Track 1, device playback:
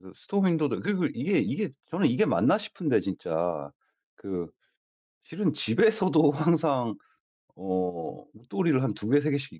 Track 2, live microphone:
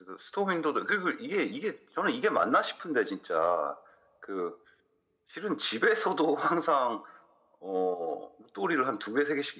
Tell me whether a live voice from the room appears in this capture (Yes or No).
No